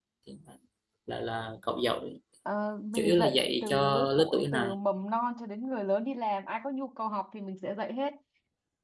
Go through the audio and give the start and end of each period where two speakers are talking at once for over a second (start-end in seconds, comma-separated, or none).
2.9-4.7